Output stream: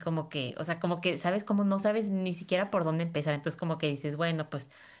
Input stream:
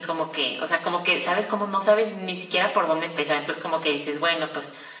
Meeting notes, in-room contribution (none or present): none